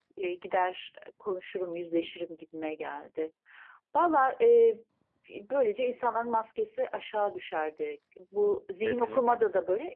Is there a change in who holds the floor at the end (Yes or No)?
No